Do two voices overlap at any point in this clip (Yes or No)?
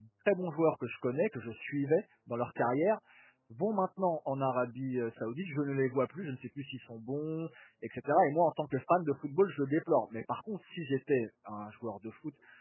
No